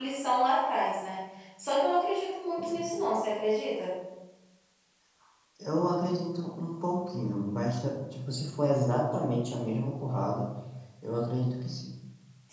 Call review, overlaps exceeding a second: none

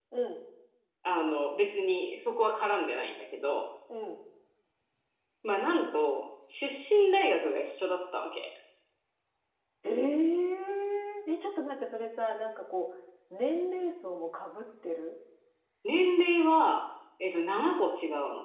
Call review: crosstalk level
none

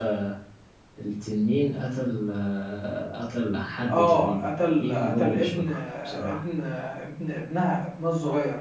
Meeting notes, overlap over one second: present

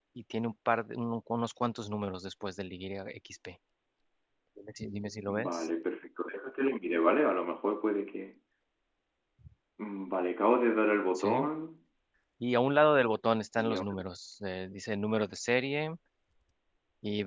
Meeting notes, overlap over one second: none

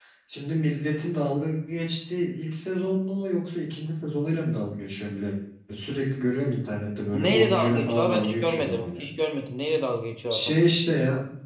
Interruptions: present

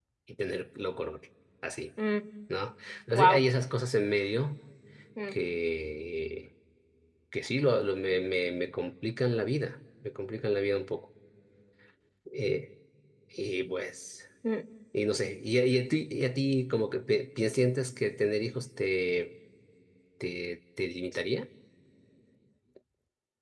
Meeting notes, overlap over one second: none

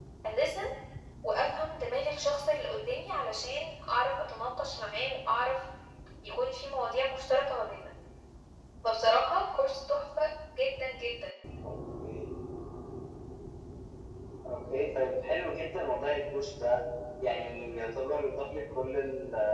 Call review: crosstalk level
none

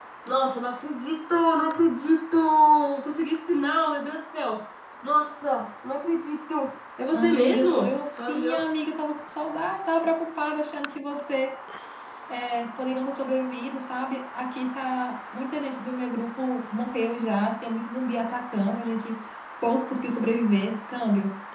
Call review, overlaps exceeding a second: present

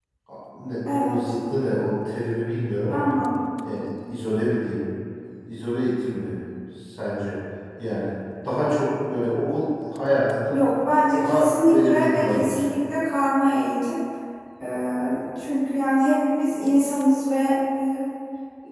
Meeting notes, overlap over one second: present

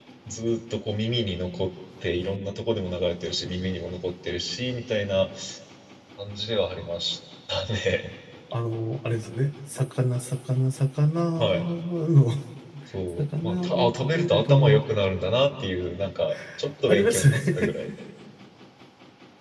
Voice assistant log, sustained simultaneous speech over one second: present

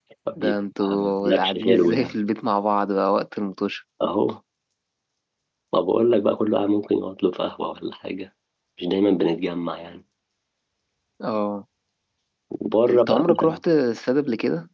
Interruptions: present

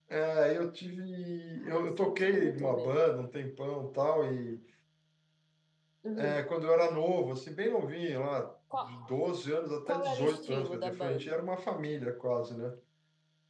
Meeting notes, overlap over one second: present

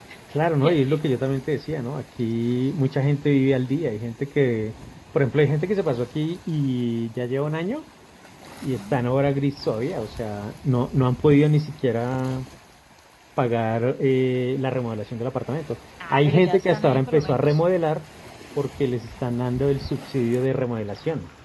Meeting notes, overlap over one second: present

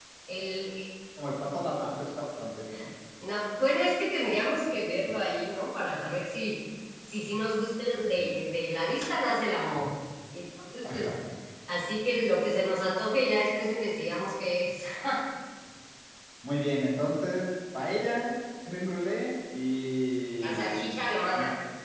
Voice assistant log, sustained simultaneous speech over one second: none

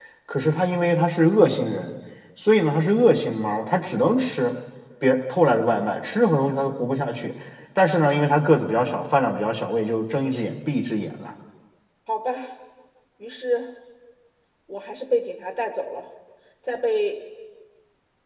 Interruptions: none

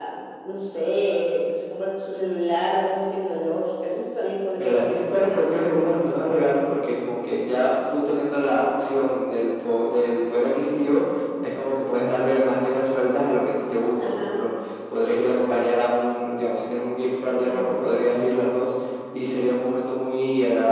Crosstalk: present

